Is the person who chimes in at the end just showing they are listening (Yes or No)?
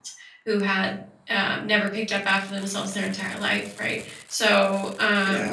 Yes